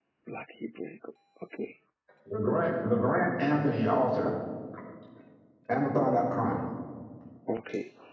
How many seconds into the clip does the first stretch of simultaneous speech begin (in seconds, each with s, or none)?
none